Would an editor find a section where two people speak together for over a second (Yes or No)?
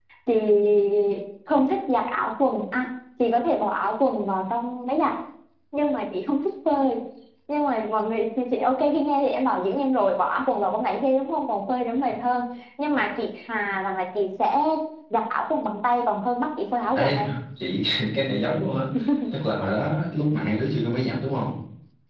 No